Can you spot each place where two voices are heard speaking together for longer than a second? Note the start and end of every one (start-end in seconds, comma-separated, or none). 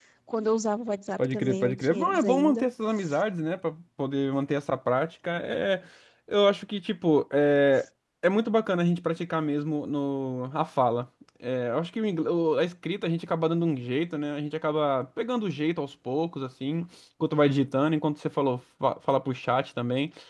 1.2-2.7